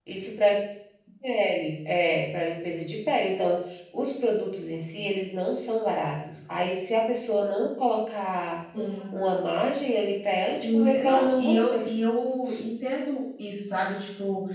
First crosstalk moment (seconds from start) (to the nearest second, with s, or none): 11 s